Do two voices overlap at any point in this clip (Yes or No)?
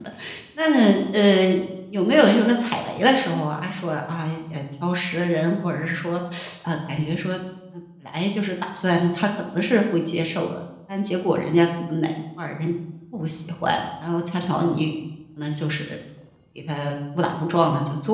No